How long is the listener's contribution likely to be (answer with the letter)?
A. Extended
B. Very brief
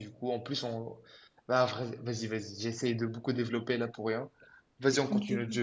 A